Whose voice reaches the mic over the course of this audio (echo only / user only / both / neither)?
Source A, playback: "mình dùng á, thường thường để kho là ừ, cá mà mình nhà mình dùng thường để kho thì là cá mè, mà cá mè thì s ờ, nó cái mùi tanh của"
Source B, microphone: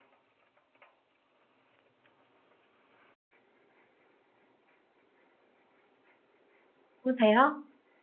user only